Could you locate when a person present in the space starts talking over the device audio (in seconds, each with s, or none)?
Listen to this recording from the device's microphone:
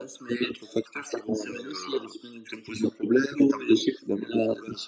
none